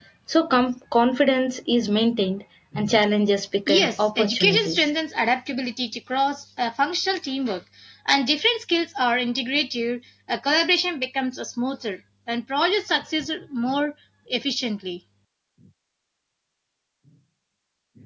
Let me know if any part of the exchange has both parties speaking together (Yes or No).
Yes